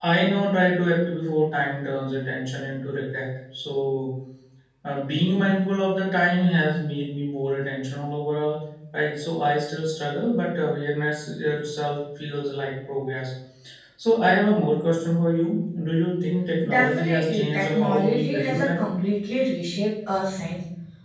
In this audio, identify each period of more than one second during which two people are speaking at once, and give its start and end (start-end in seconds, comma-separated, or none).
16.7-18.9